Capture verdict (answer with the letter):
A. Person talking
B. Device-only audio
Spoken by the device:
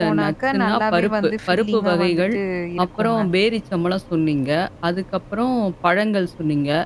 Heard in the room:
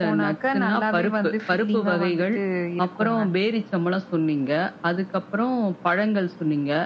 B